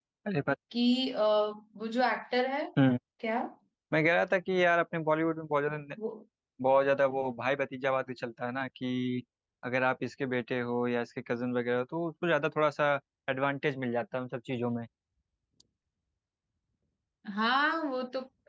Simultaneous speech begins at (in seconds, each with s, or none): none